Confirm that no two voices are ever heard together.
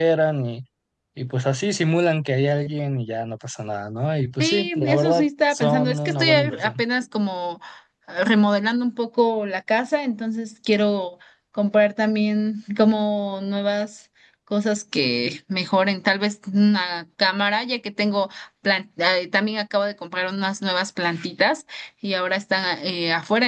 No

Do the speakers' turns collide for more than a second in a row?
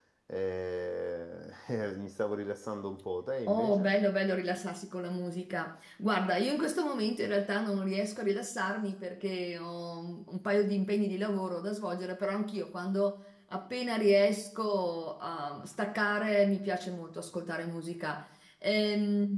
No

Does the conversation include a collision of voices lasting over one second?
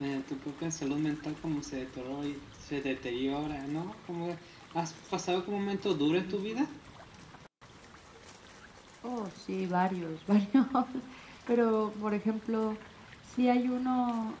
No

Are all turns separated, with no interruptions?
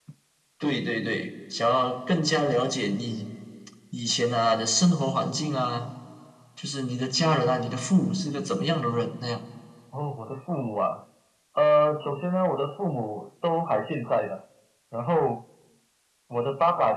Yes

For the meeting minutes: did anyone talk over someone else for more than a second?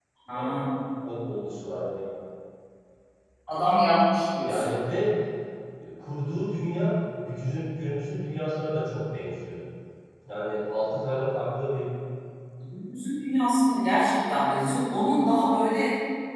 No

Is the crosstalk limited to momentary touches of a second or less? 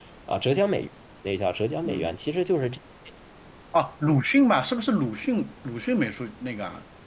Yes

